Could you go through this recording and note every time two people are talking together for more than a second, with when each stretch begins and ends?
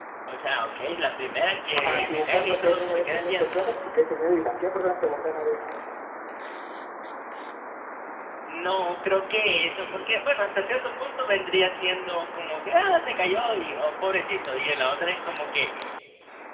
1.8-3.6

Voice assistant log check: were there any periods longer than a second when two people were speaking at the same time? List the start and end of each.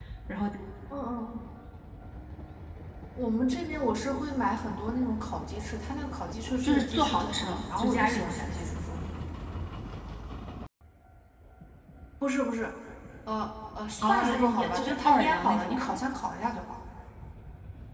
6.6-8.7, 14.0-16.0

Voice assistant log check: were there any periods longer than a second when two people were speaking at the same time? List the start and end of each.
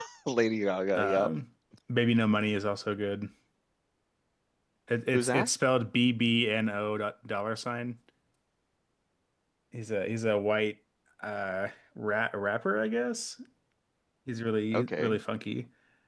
none

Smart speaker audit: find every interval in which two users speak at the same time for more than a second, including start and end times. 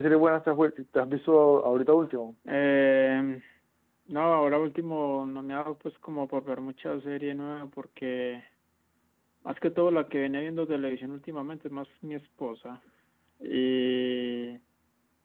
none

